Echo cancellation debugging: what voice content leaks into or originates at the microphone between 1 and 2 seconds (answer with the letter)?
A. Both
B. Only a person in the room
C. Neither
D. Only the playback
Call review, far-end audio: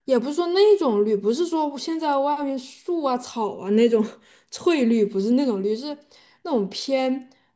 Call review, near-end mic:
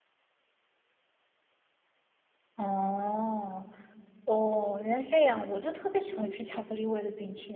C